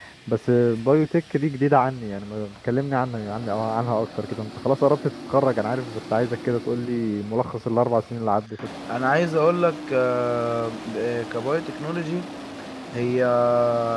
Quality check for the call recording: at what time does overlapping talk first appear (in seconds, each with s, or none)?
none